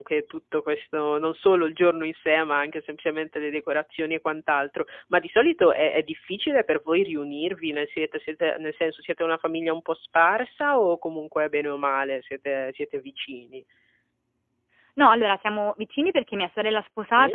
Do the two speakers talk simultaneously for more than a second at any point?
No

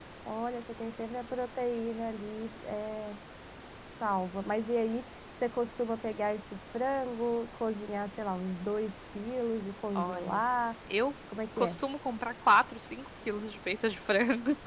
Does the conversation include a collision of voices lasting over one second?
No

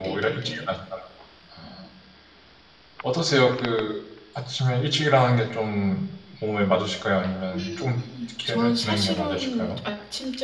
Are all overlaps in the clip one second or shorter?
No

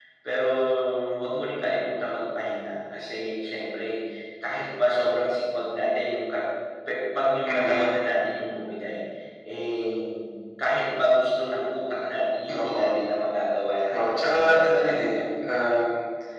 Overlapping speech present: Yes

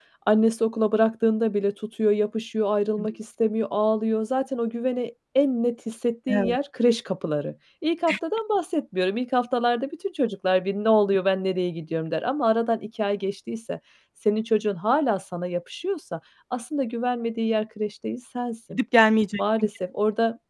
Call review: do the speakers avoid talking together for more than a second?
Yes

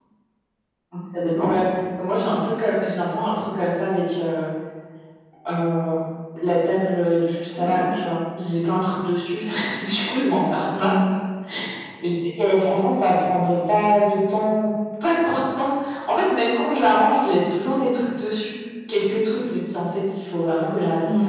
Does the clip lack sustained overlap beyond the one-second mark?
Yes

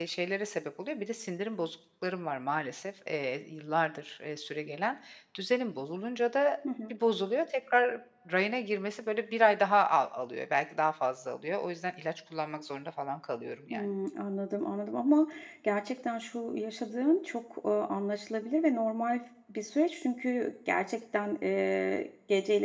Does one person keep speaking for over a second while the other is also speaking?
No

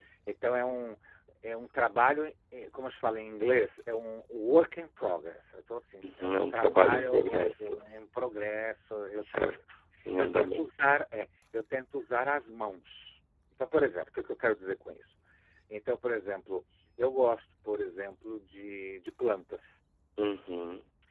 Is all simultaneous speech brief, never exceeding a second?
No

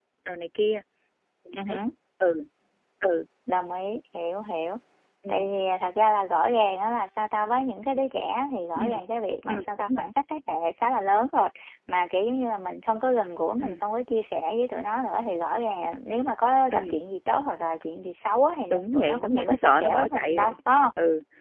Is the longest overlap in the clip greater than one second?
Yes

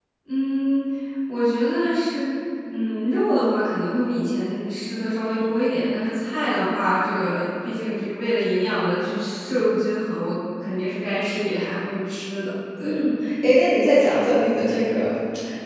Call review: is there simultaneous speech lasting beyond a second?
No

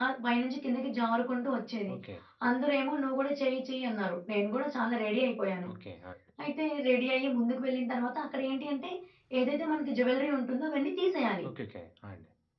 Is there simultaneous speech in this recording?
No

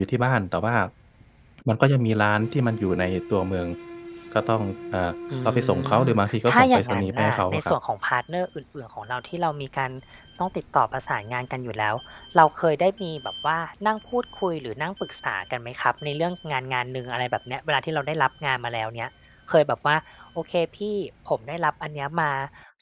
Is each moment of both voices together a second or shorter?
No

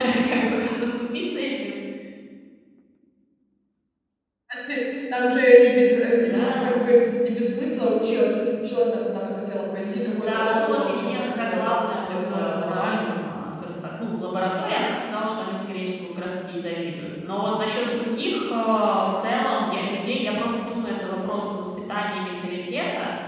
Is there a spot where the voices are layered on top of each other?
Yes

